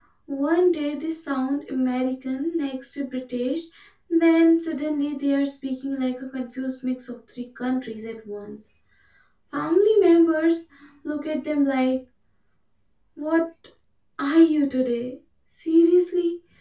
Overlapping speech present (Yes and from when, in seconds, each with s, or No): No